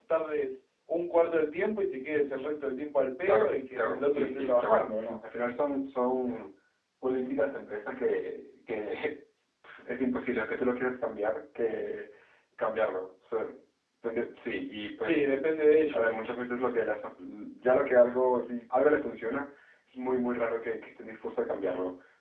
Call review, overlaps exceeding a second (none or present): present